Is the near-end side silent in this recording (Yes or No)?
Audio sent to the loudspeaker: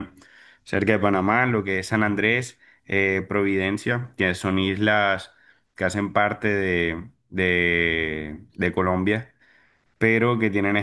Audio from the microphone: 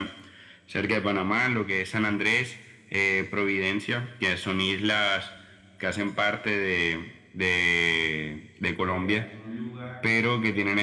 No